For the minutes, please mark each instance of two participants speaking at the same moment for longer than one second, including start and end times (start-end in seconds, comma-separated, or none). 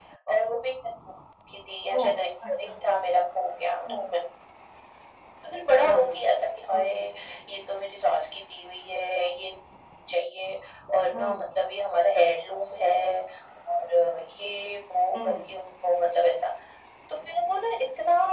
none